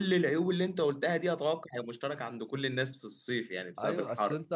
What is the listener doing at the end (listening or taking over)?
taking over